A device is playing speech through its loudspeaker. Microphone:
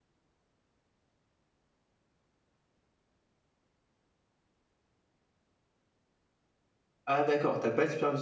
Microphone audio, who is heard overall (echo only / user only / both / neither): user only